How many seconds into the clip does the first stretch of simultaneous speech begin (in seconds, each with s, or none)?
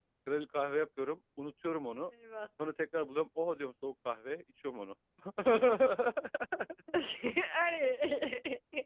none